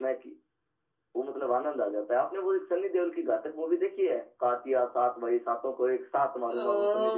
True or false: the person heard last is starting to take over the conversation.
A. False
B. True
B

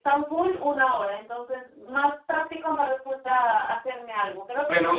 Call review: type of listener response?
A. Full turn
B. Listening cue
A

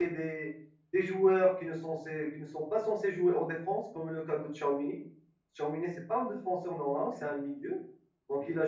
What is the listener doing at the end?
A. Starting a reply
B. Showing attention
B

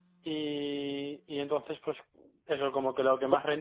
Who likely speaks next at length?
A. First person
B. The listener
B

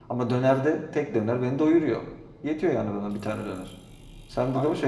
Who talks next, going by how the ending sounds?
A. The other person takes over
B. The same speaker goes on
A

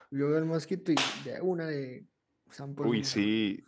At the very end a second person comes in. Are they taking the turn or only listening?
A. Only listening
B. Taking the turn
B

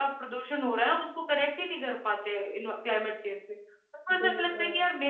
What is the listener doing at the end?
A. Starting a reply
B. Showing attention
B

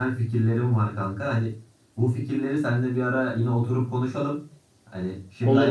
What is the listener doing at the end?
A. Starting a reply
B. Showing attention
B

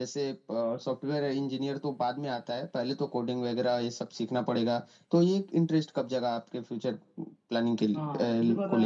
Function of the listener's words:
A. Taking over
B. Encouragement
A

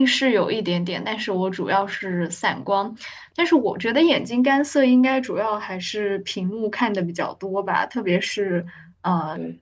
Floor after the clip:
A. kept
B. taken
A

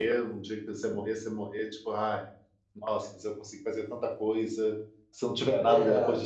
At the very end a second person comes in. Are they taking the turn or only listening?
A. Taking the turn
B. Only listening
B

